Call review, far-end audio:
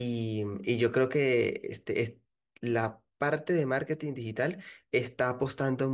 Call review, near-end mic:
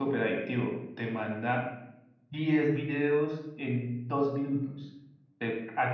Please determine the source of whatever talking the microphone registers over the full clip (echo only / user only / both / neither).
user only